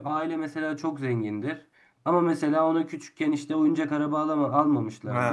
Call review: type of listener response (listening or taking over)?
listening